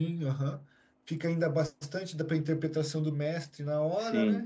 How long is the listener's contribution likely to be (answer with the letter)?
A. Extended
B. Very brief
A